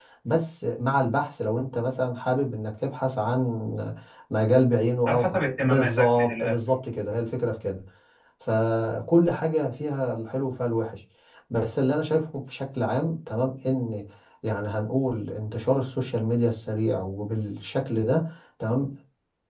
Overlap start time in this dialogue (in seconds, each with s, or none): 5.1 s